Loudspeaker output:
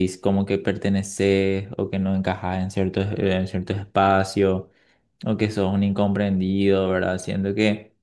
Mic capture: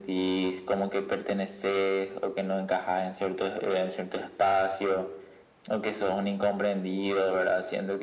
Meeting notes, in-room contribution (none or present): none